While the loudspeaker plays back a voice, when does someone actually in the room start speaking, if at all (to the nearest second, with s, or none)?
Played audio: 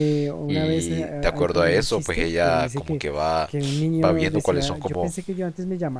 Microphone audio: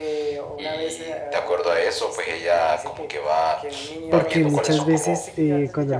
4 s